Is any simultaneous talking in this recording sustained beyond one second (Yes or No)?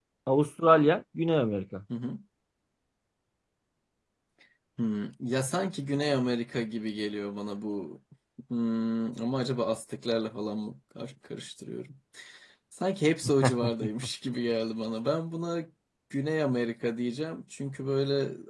No